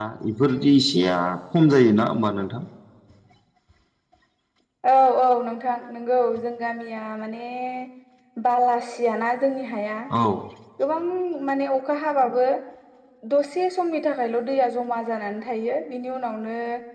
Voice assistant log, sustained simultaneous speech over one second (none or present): none